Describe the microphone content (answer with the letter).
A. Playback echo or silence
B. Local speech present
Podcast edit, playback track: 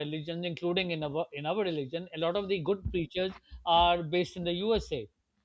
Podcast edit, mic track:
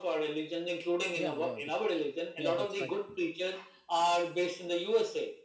B